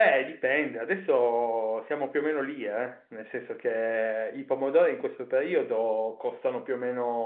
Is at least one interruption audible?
No

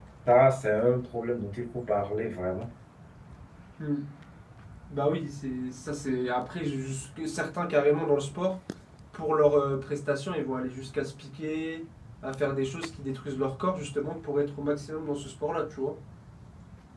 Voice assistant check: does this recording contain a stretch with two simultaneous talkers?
No

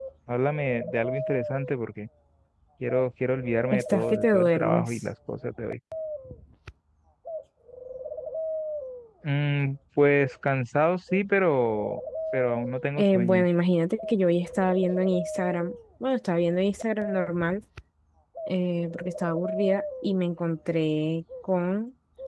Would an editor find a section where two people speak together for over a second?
Yes, from 3.7 s

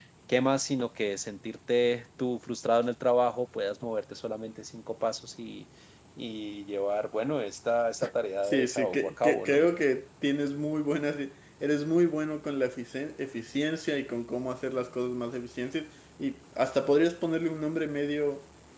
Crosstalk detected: Yes, from 8.4 s

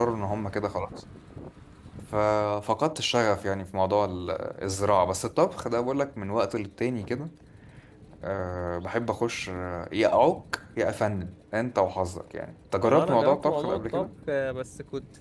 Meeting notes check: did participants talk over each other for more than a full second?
Yes, from 12.8 s

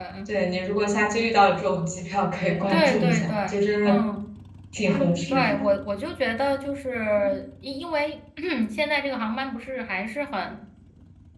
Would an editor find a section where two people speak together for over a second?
Yes, from 2.7 s

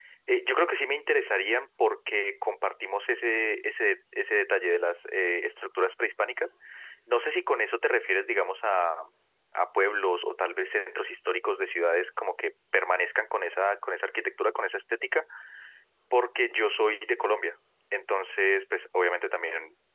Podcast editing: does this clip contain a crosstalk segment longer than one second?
No

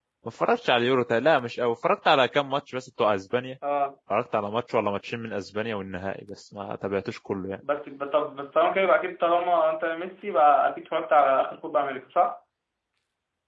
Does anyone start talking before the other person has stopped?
No

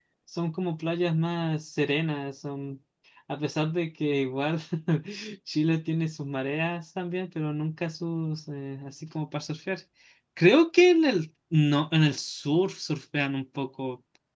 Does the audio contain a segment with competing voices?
No

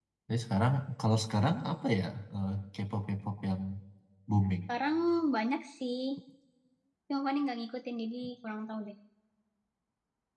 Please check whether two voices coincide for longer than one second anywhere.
No

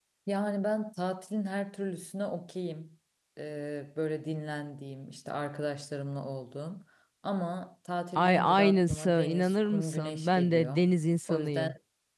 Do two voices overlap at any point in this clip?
Yes, from 8.2 s

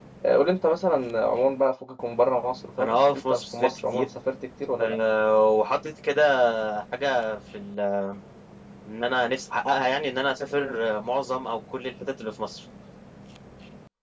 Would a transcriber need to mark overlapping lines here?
Yes, from 2.8 s

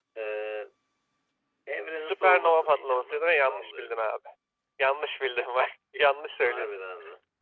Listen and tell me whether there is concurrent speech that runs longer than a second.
Yes, from 1.9 s

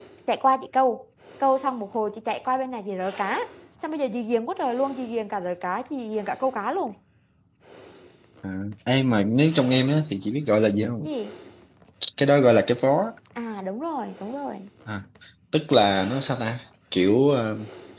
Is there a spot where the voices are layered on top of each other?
No

